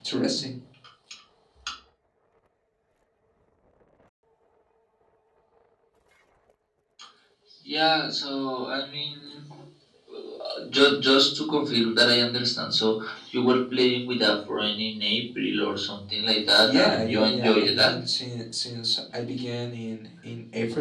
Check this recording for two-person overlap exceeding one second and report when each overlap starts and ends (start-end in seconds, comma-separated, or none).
16.6-17.9